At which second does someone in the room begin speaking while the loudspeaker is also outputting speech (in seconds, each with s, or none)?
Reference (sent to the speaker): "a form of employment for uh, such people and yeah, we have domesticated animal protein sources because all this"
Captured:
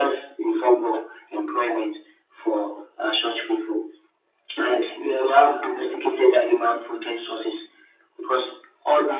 none